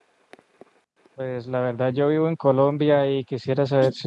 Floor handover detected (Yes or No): No